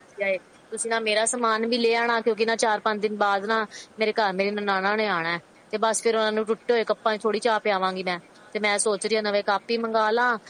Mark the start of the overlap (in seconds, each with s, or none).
none